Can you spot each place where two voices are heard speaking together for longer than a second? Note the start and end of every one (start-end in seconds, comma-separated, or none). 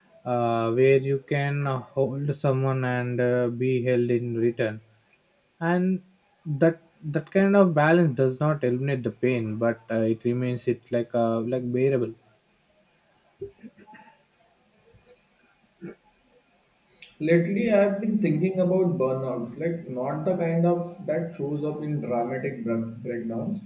none